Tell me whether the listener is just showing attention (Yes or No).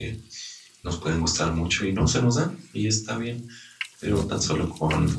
Yes